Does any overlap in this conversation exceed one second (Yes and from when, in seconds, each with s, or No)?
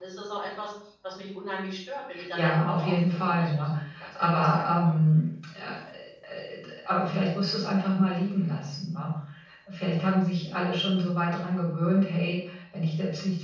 Yes, from 2.1 s